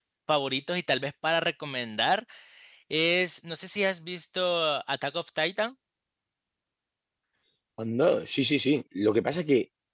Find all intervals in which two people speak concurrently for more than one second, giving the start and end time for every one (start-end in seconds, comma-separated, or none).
none